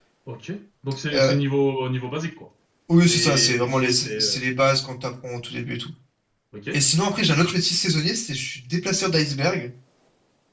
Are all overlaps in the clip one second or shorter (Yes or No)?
No